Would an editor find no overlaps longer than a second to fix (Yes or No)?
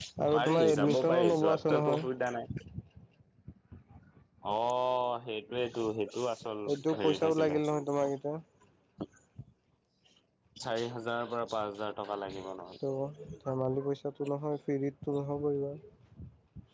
No